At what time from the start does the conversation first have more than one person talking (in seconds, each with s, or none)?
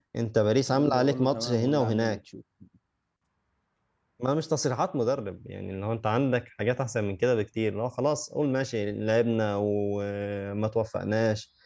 0.7 s